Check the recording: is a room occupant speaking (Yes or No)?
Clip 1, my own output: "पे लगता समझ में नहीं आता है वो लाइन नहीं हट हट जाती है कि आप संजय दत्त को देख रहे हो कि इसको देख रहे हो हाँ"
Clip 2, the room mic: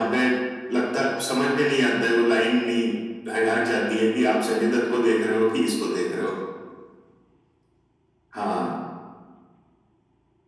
No